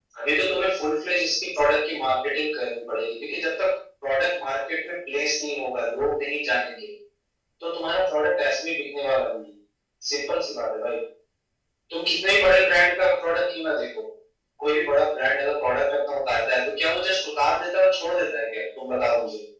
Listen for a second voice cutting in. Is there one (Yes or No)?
No